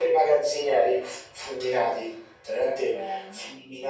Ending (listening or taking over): listening